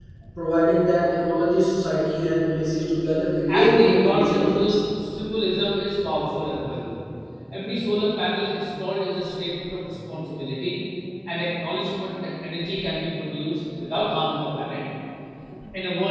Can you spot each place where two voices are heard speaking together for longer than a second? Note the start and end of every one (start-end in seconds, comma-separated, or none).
3.5-4.8